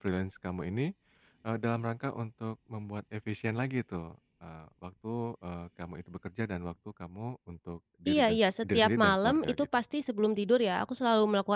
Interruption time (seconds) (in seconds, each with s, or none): 8.1 s